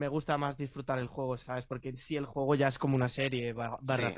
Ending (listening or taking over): taking over